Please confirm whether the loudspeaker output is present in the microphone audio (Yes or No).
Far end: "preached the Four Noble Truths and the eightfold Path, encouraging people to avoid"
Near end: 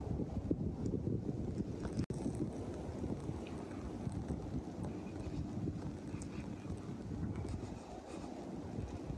No